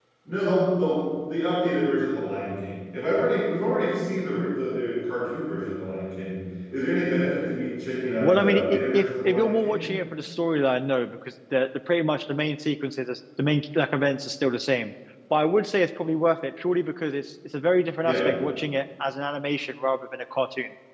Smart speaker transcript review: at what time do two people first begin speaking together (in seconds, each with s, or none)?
8.2 s